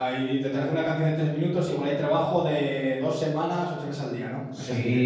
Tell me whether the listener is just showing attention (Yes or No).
No